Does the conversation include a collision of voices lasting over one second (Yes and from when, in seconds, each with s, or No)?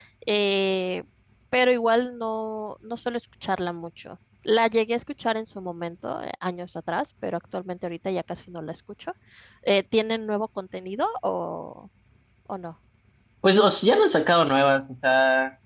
No